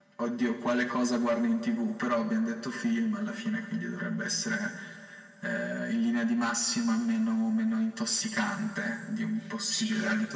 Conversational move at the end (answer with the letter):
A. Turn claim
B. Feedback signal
A